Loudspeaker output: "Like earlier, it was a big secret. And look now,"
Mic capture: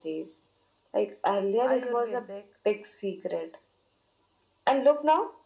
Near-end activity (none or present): present